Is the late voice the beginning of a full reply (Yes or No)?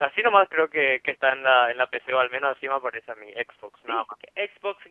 Yes